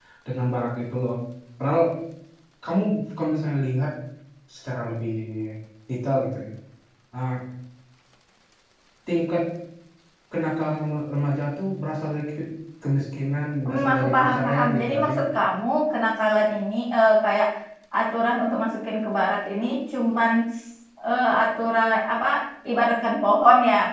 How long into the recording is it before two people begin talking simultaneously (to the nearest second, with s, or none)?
14 s